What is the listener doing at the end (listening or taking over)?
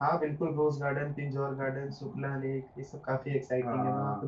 taking over